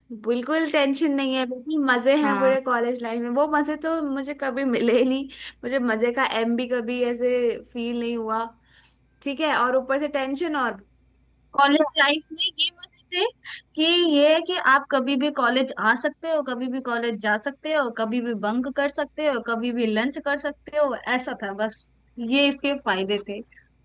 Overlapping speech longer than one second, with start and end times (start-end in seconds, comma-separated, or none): none